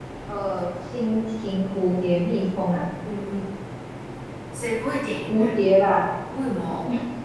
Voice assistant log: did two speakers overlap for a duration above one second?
No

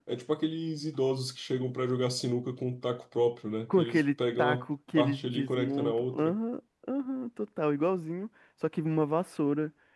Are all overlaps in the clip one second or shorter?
No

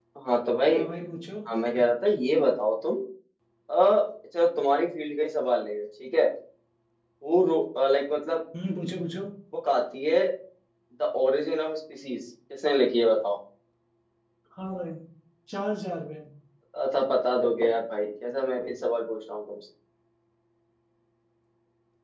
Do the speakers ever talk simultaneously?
No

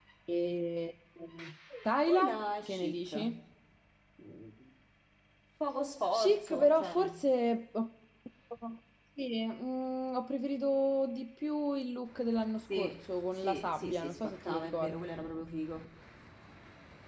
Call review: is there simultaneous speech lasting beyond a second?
Yes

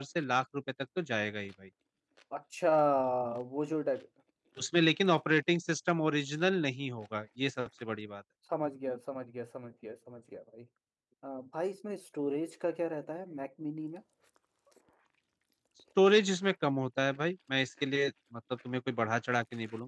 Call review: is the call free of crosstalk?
Yes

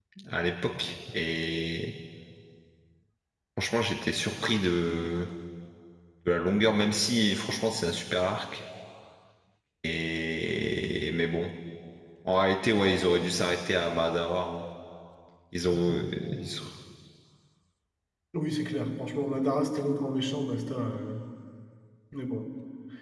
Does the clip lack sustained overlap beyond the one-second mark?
Yes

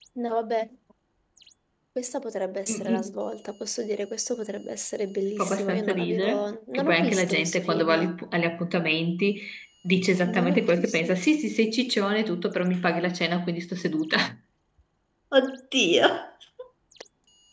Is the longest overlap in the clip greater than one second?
Yes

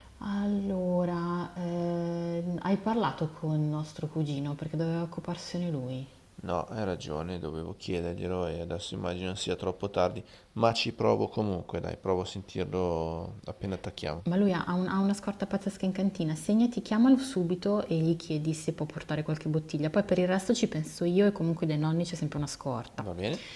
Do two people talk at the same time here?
No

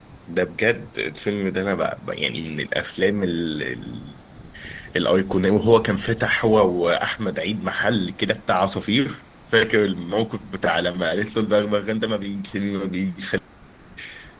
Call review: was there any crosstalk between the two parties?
No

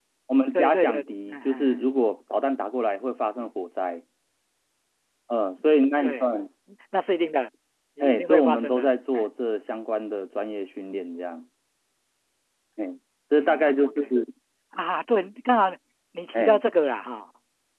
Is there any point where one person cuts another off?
Yes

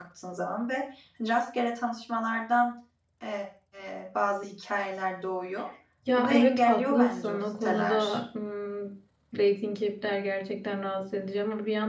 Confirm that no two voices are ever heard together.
No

